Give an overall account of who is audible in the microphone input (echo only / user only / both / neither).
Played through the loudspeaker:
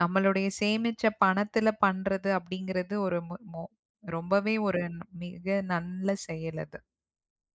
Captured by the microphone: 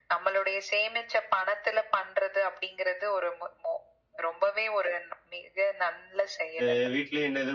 both